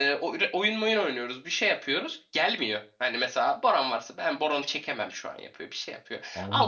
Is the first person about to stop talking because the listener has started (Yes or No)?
Yes